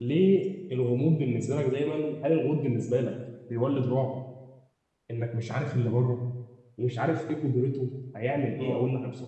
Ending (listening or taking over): taking over